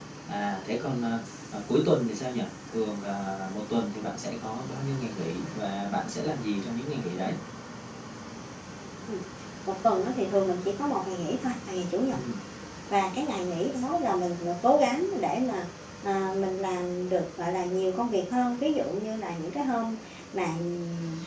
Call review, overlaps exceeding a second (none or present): none